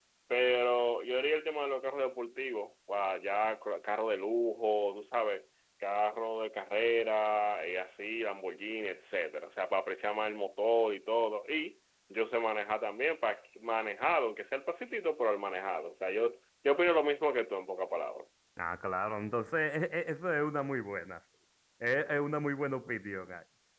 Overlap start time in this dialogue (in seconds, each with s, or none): none